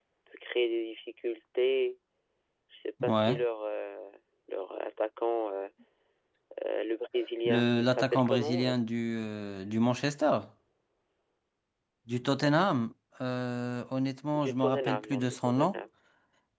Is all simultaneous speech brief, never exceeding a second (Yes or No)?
No